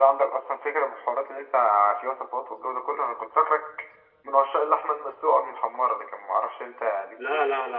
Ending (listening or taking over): taking over